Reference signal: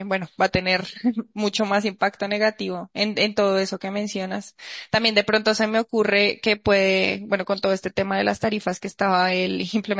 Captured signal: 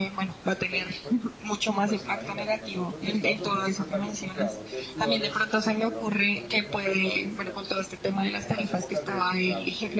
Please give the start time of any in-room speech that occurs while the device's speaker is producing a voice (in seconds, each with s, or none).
0.7 s